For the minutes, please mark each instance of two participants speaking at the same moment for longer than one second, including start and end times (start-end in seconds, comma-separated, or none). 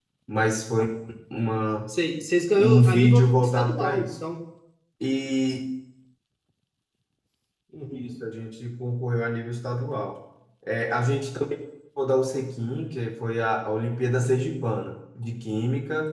2.6-4.0